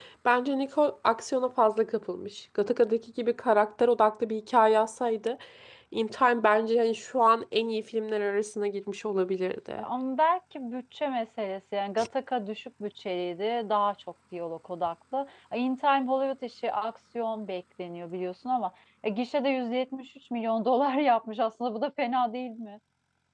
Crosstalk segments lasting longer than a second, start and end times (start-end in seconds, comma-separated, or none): none